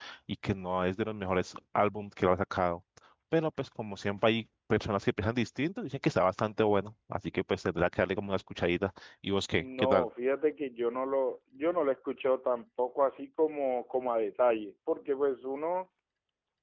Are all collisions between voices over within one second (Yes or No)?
Yes